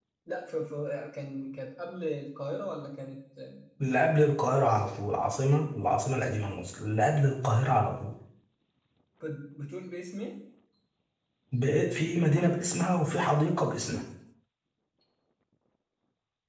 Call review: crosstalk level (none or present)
none